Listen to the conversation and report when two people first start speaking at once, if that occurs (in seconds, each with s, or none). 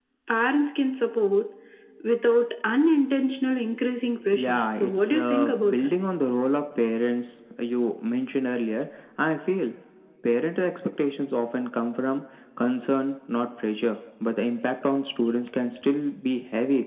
4.3 s